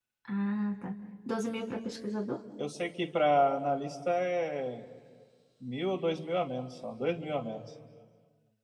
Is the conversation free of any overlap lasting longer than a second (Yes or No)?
Yes